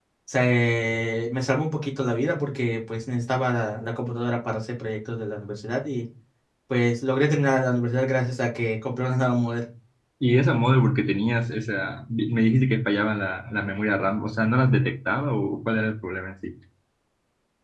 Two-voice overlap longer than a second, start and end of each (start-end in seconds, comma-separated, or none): none